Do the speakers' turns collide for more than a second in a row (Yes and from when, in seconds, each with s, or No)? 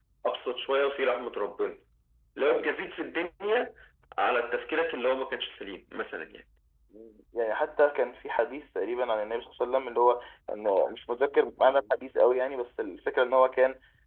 No